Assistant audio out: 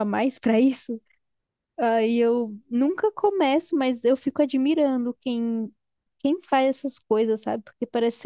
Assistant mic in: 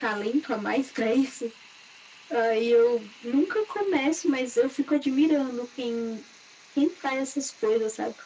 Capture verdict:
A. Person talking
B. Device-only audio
B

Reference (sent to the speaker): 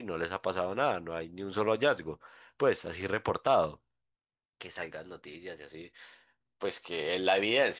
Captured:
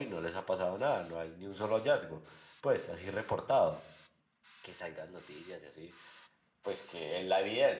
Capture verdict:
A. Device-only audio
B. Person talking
A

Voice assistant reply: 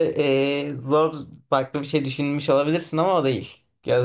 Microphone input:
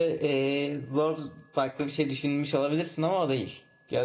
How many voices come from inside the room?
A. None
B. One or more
A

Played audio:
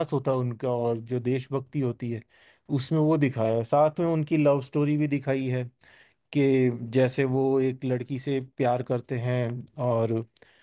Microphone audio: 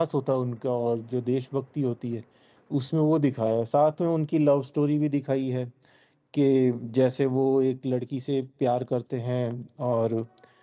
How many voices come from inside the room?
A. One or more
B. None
B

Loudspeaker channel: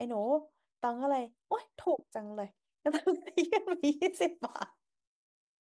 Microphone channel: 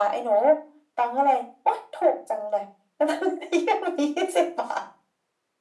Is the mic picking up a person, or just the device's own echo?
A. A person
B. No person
B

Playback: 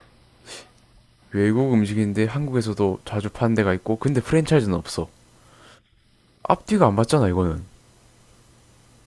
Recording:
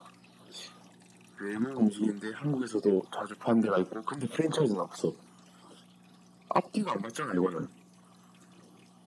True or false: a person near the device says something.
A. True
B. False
B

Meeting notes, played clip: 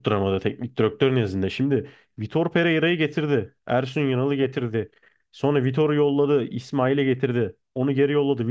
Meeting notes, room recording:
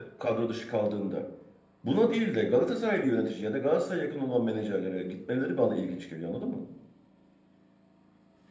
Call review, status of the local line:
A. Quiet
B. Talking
B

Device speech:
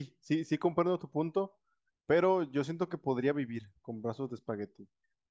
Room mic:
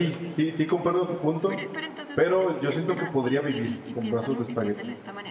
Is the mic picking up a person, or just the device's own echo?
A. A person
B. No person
A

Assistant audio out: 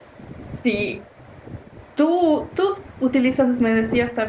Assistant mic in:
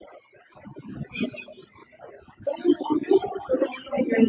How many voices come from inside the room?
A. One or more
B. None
B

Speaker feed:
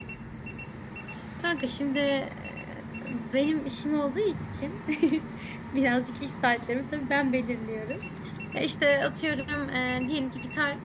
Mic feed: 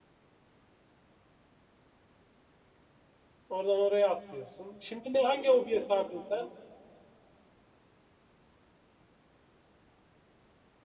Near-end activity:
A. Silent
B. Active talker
B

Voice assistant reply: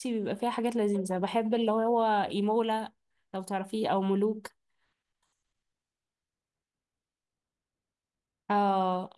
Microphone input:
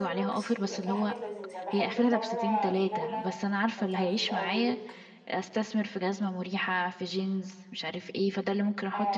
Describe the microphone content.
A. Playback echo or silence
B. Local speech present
B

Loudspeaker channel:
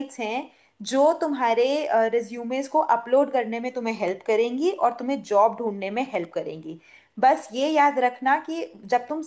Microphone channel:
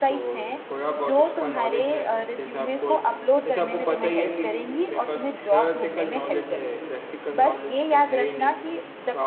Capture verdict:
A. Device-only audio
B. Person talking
B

